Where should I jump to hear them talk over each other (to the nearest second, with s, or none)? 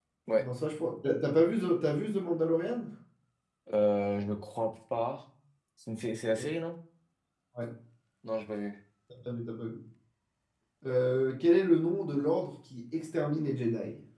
none